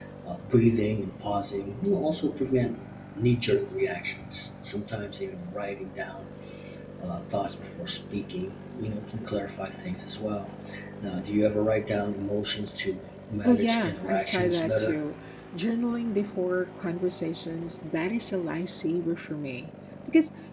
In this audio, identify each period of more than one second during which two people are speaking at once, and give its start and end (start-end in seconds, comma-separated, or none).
13.4-15.0